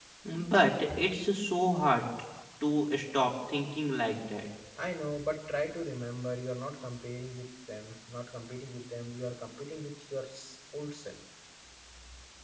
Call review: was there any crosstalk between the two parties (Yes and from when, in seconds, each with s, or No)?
No